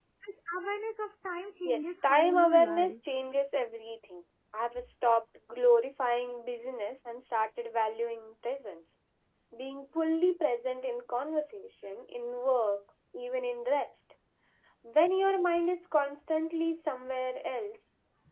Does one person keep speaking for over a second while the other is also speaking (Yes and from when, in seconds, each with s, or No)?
Yes, from 1.6 s